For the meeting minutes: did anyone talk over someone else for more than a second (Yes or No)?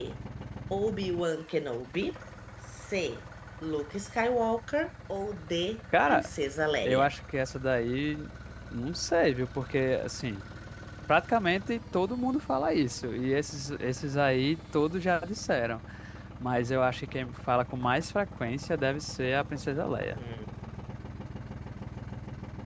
No